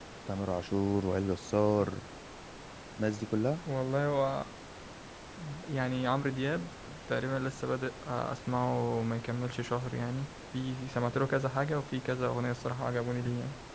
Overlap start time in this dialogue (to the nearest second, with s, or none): none